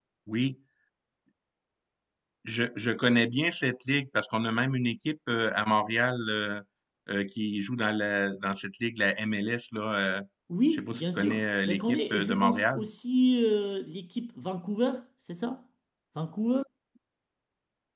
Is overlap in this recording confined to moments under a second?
No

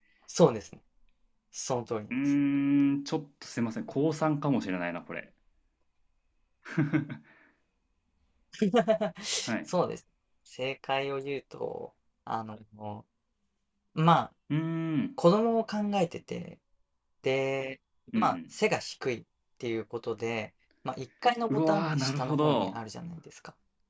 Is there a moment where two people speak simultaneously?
Yes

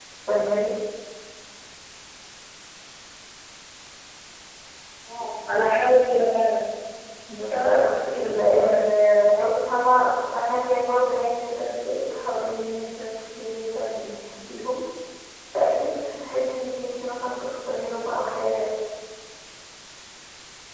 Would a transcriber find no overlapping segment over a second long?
No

